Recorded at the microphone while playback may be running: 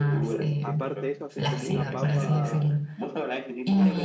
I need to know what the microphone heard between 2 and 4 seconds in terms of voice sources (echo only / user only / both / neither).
both